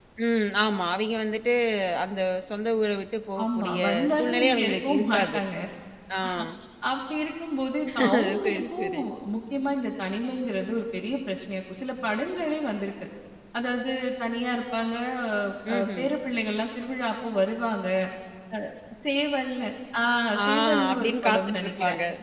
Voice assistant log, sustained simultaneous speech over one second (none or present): present